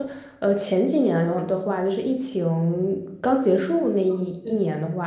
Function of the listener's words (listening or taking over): listening